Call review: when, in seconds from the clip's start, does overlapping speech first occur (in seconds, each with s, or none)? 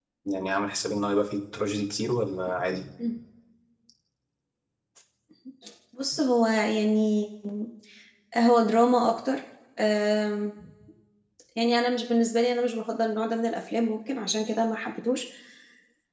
none